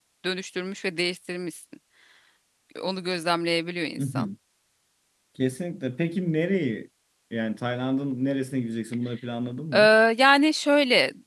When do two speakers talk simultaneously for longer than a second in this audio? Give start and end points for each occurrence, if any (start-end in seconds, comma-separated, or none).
none